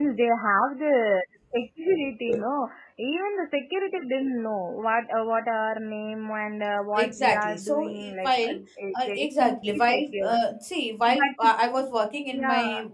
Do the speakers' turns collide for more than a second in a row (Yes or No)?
Yes